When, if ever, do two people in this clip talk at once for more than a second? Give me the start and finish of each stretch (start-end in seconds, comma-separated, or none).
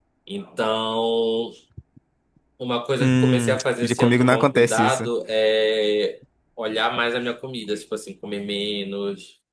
3.0-5.1